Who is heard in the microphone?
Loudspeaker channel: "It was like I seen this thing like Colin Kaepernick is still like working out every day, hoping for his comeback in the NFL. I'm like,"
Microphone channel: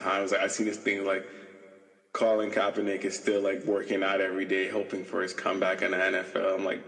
echo only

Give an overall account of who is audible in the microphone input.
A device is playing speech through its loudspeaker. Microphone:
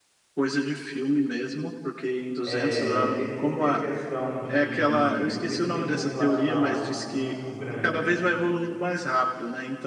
both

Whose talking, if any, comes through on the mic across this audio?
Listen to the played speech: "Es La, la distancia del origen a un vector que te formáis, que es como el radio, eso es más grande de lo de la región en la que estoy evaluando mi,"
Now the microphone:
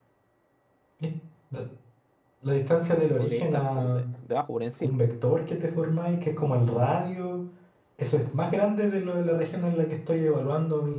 both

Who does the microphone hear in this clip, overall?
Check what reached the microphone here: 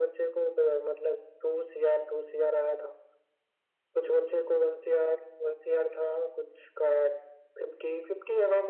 echo only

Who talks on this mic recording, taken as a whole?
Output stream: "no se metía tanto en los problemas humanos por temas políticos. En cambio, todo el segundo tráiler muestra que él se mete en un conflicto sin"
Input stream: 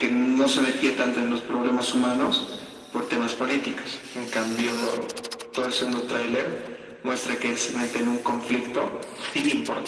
echo only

